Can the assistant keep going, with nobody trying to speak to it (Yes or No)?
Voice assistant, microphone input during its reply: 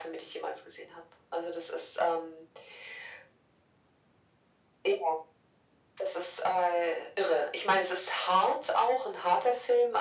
Yes